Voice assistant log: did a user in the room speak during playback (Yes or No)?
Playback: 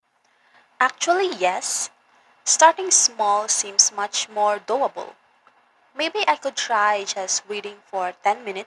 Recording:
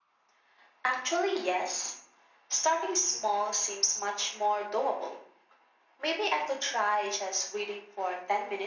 No